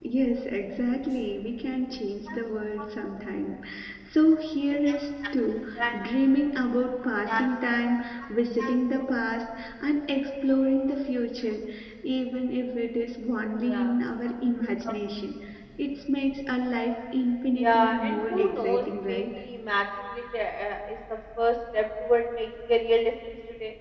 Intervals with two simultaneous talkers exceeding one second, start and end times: 17.6-19.2

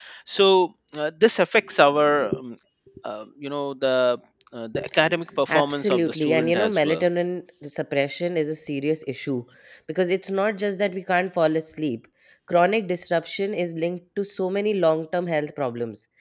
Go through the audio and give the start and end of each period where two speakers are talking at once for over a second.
5.5-7.0

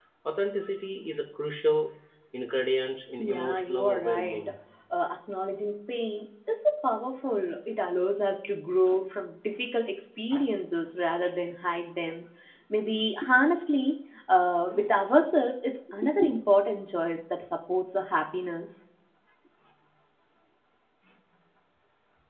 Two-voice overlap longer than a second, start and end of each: 3.2-4.5

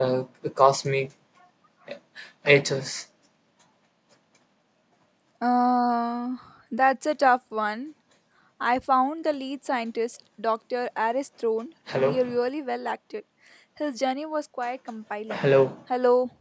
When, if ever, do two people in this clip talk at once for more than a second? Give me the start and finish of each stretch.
none

